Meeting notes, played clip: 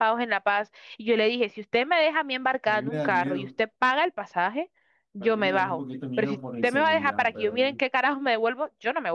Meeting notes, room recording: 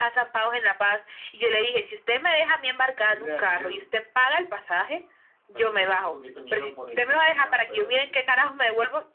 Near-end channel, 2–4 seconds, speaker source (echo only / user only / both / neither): echo only